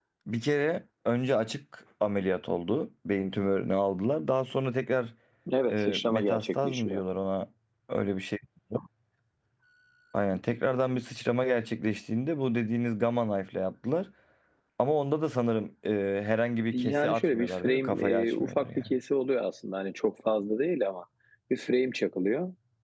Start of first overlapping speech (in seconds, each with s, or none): 5.7 s